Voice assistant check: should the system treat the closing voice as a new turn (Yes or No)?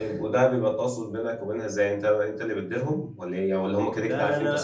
Yes